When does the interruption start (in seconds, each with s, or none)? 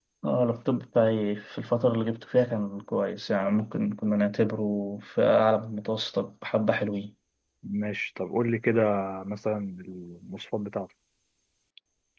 none